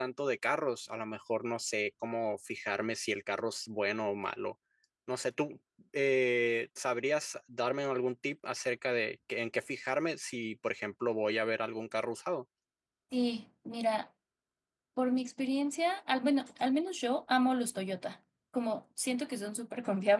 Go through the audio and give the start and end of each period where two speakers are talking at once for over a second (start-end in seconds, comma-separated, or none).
none